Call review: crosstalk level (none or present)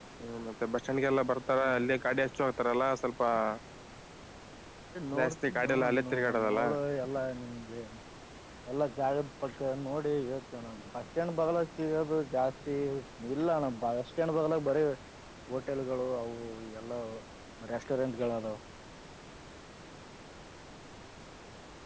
present